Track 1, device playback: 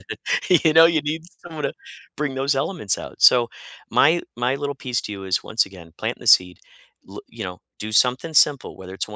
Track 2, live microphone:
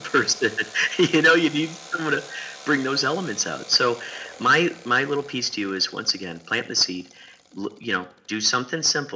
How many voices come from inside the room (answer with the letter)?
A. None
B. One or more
A